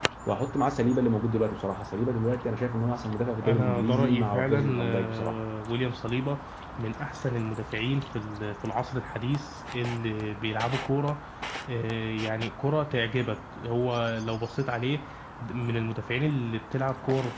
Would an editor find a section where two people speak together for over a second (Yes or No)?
Yes